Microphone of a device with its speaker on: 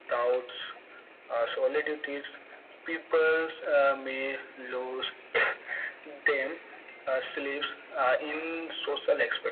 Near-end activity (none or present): none